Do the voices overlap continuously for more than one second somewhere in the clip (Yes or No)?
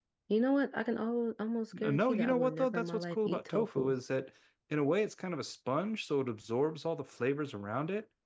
Yes